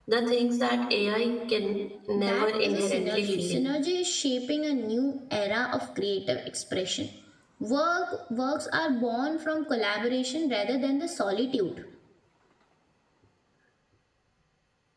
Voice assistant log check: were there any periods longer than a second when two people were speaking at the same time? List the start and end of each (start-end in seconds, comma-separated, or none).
2.2-3.6